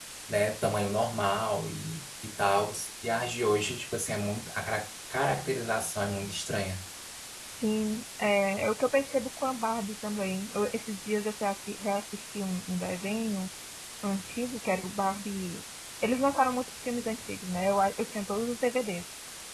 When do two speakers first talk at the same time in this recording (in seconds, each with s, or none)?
none